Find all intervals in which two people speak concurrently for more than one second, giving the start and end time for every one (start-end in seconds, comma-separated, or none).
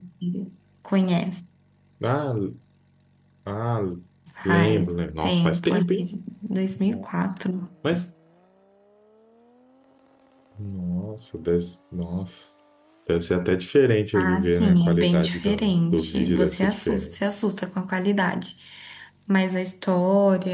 4.5-6.1, 14.1-17.1